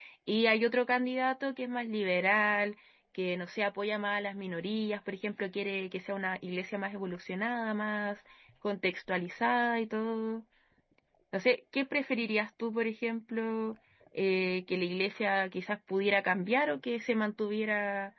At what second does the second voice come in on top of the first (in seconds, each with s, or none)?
none